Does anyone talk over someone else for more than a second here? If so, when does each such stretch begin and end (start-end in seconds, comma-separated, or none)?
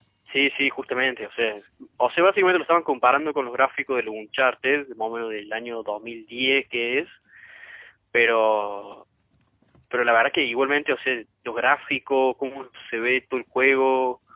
none